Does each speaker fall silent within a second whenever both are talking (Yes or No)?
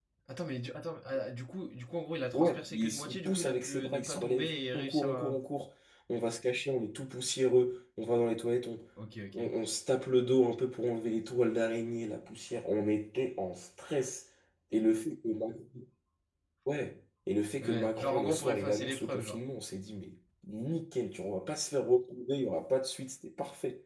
No